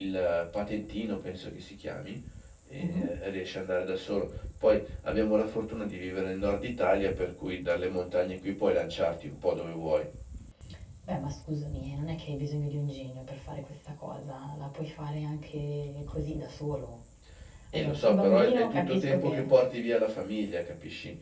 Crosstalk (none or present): present